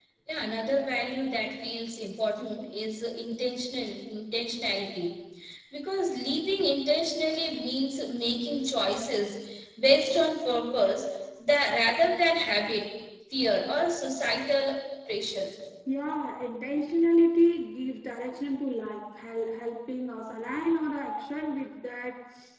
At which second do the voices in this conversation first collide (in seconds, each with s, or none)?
none